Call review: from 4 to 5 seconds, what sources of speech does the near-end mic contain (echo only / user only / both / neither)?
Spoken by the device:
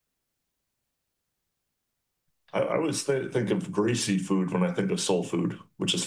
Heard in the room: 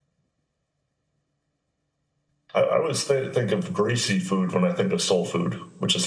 echo only